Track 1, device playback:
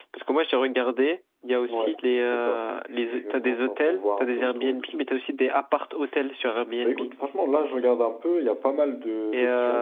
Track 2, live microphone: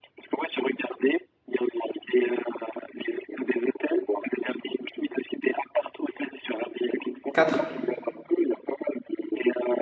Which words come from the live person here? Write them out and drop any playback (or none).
quatre